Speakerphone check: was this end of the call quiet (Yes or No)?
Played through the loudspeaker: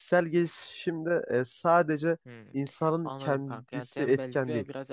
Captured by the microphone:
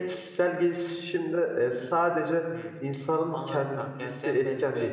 Yes